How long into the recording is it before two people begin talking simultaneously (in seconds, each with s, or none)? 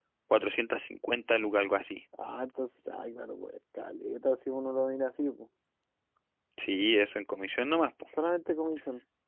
none